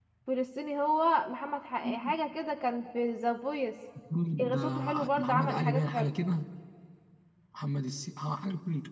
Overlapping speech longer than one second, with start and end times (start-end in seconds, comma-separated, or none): 4.5-6.1